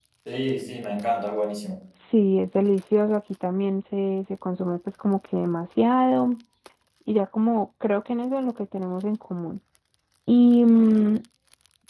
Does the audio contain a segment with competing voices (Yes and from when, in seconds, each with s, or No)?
No